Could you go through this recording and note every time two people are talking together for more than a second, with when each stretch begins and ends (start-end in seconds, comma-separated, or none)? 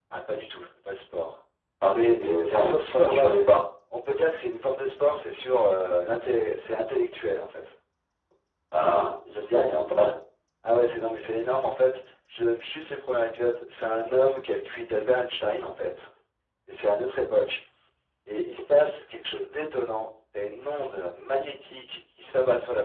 1.9-3.3